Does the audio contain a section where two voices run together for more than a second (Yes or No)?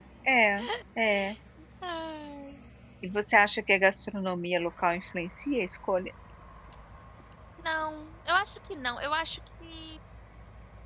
No